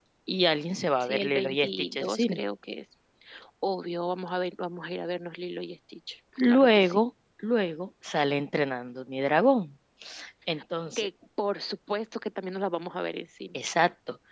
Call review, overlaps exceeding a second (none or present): present